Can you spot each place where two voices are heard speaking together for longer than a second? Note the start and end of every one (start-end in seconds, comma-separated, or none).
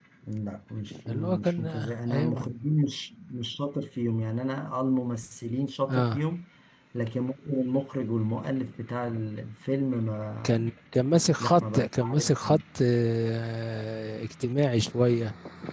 1.1-2.5, 11.4-12.6